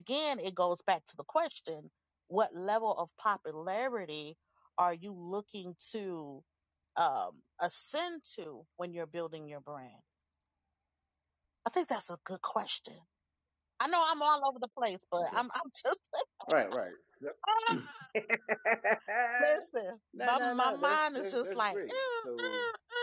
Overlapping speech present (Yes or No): Yes